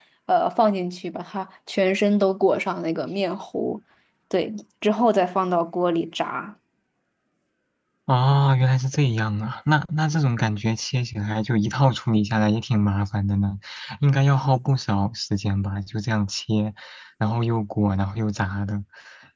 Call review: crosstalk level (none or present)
none